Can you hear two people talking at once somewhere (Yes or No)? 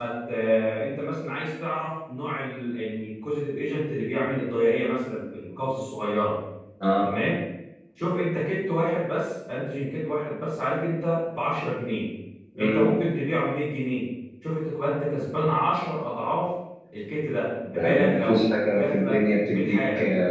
Yes